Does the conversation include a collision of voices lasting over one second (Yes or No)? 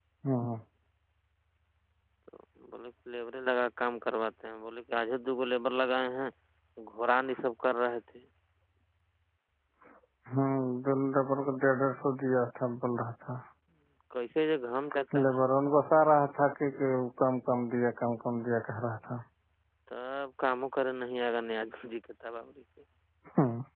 No